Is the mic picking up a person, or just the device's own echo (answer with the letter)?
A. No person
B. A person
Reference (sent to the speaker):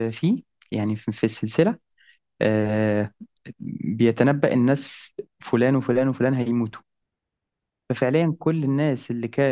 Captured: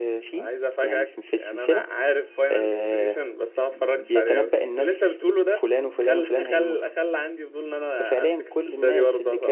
B